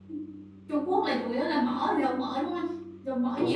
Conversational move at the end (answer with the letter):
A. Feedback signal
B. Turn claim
B